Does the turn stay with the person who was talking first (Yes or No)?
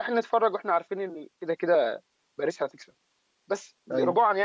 Yes